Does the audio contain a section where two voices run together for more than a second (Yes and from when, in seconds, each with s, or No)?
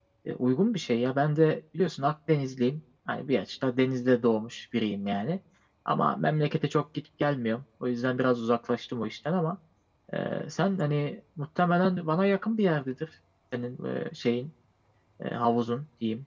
No